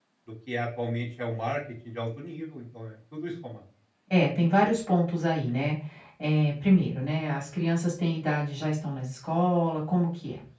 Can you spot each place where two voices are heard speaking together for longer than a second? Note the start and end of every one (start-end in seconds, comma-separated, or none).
none